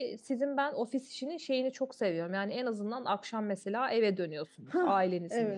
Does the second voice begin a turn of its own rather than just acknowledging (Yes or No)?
Yes